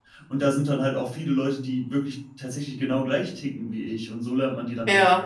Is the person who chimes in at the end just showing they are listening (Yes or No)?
No